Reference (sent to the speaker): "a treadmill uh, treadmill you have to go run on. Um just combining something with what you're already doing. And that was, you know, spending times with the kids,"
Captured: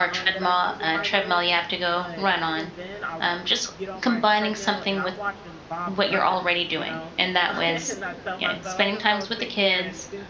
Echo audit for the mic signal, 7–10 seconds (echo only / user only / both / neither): both